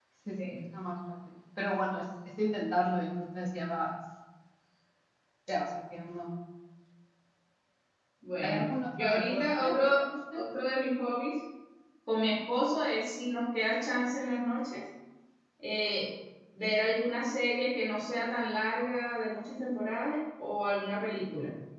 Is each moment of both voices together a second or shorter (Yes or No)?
No